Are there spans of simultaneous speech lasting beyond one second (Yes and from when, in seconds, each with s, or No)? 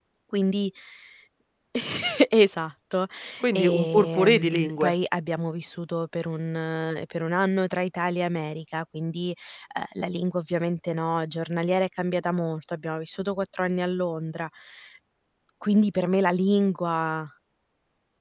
Yes, from 3.5 s